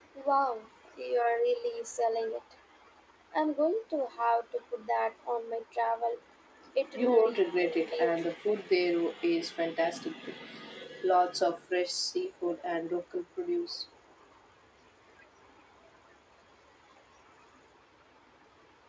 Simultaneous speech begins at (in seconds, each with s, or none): 7.0 s